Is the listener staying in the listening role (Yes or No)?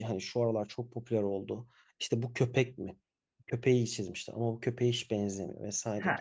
No